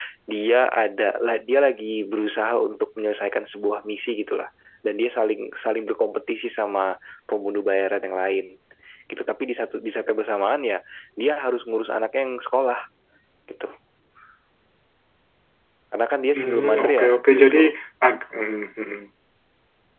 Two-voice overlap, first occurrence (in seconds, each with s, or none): 16.4 s